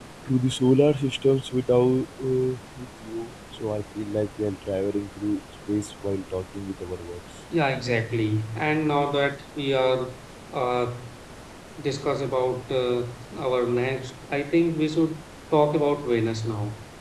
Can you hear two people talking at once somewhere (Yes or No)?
No